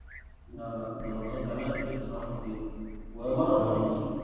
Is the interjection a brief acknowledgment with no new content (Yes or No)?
Yes